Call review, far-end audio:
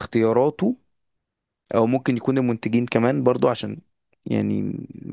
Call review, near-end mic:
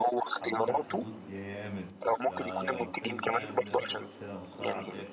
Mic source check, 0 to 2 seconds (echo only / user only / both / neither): both